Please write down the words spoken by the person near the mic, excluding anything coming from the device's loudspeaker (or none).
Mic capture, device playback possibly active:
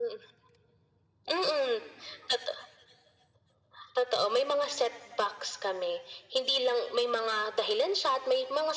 none